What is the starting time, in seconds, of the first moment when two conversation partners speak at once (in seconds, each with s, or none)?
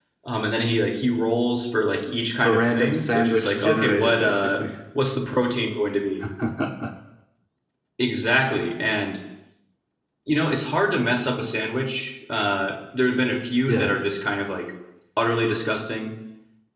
2.4 s